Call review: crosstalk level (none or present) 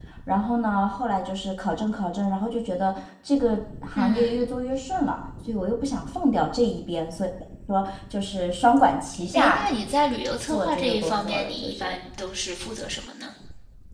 present